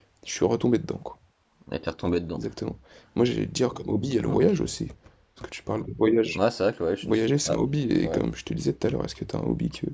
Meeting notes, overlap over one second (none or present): none